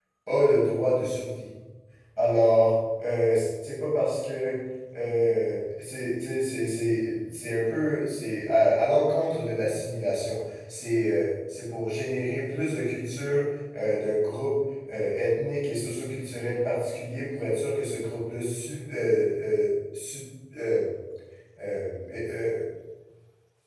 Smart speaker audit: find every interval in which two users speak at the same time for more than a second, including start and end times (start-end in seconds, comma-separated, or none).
none